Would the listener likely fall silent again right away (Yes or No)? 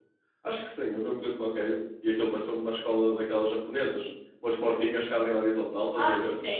No